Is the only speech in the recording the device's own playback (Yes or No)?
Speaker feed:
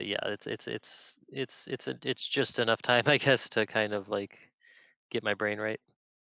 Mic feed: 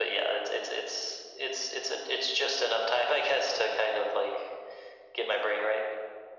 Yes